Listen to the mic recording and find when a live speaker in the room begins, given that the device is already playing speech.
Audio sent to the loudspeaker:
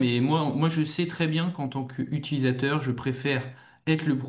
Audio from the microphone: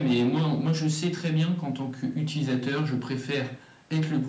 none

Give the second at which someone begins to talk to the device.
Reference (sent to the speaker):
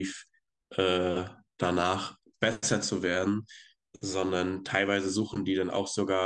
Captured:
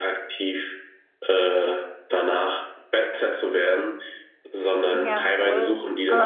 5 s

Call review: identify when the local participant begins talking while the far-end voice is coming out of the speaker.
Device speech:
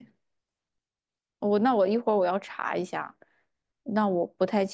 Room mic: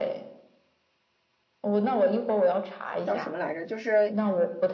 3 s

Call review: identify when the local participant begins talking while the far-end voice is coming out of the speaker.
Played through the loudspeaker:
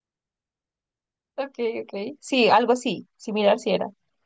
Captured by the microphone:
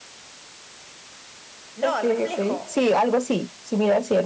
2 s

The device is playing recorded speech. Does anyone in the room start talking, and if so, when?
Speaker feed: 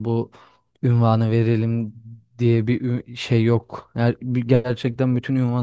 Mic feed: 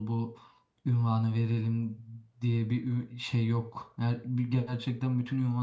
none

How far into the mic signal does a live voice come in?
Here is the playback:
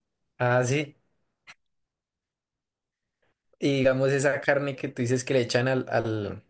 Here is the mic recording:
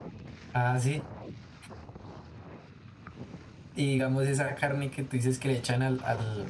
none

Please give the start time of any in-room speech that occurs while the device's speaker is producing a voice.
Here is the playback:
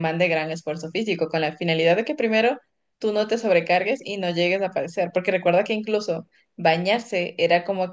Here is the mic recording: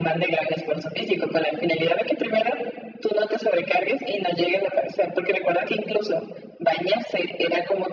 none

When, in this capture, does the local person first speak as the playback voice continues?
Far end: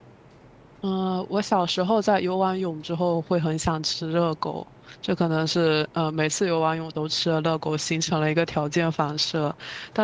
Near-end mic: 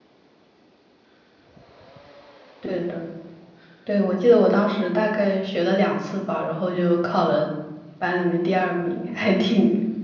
3 s

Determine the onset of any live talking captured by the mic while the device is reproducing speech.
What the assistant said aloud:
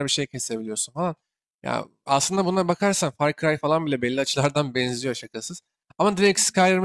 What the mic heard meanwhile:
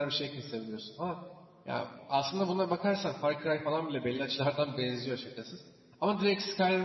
none

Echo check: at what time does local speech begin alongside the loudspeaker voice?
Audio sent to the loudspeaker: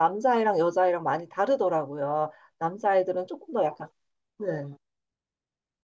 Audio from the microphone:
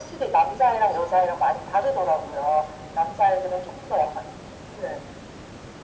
none

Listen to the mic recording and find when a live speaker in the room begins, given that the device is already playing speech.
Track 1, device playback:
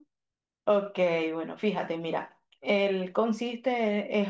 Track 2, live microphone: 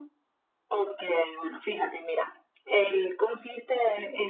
none

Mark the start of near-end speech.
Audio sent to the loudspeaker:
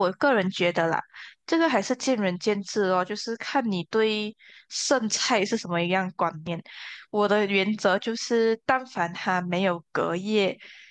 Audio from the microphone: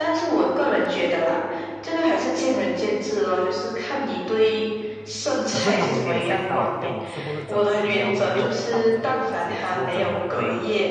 5 s

